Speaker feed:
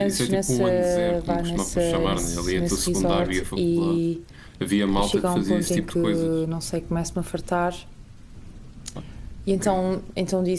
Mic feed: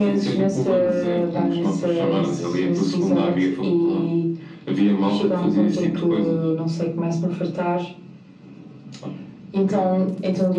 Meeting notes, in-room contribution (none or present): none